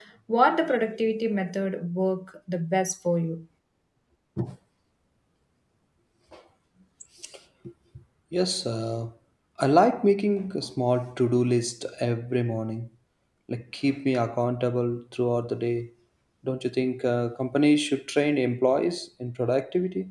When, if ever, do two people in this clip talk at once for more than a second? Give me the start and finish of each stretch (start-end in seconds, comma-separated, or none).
none